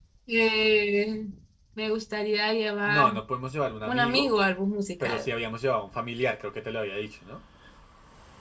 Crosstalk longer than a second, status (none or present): none